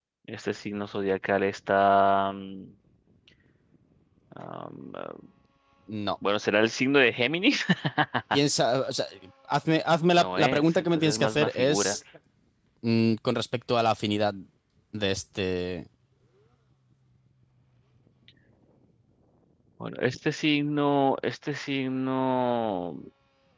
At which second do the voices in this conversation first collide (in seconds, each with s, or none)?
10.2 s